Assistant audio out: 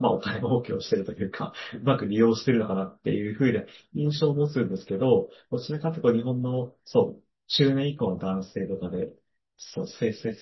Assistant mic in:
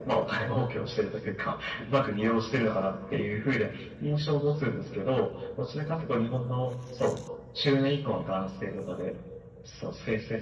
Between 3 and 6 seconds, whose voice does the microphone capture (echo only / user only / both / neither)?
echo only